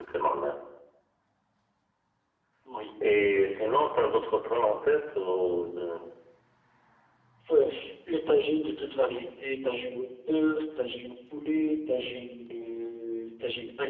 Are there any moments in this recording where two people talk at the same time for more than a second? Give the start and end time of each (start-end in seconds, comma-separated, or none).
none